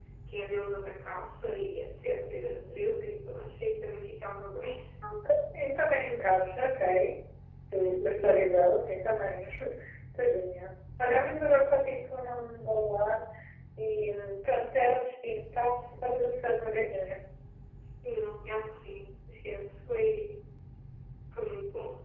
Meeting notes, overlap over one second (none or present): none